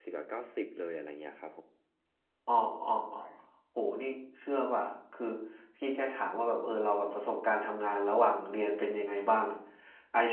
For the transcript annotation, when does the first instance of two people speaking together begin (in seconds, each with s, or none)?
none